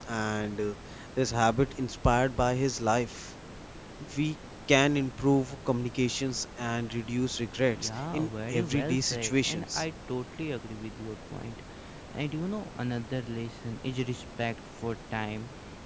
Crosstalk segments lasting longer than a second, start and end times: 7.8-9.8

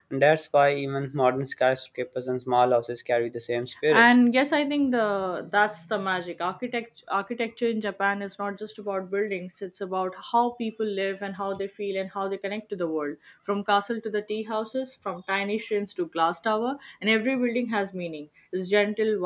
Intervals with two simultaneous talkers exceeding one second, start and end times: none

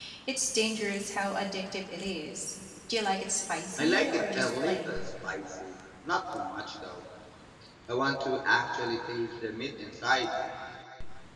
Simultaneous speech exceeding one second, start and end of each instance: 3.8-5.0

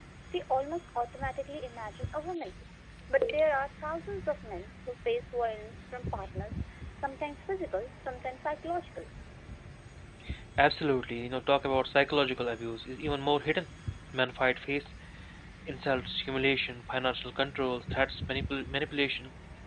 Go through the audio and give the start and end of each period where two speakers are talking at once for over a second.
none

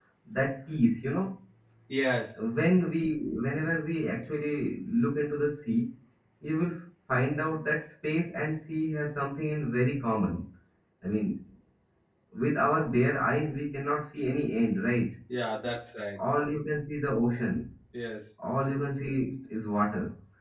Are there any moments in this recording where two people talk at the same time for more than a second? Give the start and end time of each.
none

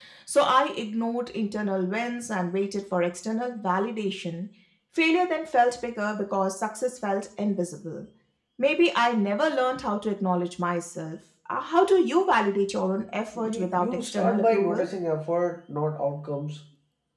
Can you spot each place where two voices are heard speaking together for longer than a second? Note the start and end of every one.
13.3-14.9

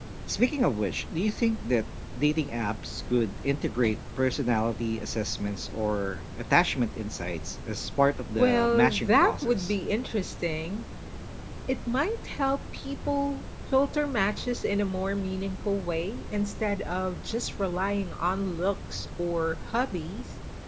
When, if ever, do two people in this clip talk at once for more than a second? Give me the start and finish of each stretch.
8.4-9.7

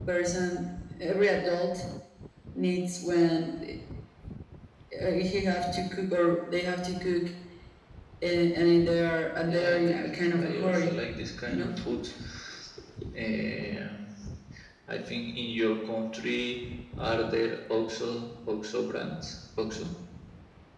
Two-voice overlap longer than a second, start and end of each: 9.5-11.0

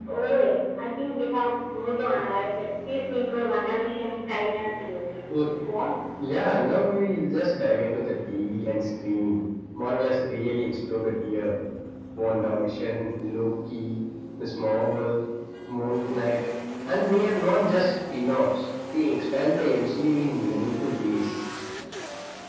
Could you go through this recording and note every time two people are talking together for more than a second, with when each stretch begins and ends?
none

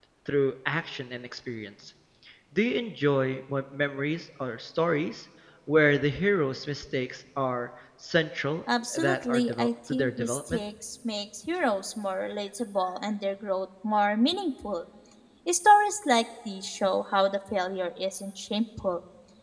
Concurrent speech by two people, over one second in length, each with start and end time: 8.9-10.6

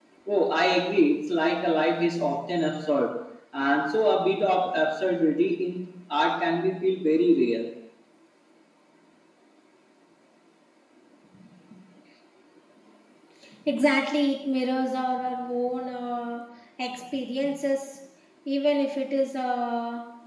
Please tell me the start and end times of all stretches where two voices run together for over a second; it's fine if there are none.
none

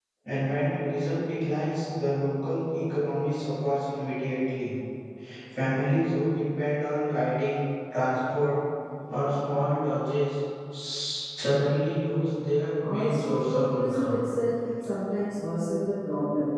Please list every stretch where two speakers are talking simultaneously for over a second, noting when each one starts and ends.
12.8-14.2

